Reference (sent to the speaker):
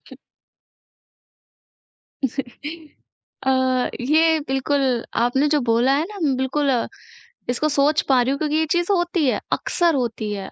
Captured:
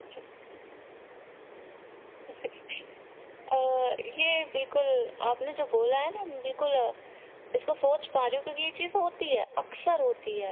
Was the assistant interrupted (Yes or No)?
No